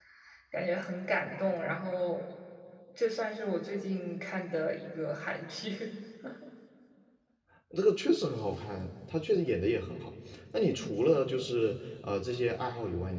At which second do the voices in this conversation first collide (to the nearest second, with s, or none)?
none